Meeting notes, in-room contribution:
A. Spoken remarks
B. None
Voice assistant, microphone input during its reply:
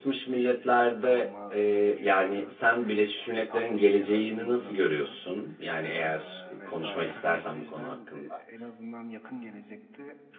A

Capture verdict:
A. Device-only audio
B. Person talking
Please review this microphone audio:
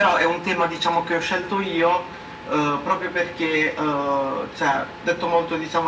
A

